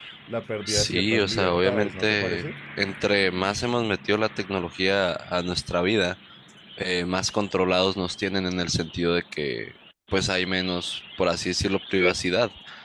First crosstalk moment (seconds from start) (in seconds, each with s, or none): 0.7 s